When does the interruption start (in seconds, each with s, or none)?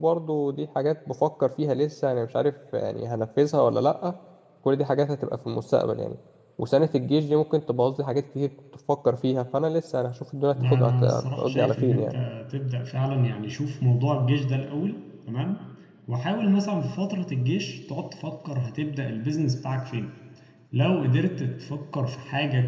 10.6 s